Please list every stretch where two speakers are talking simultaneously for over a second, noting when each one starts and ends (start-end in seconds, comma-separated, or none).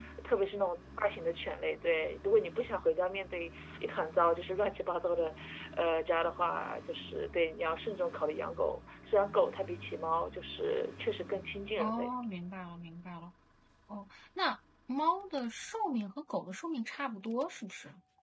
none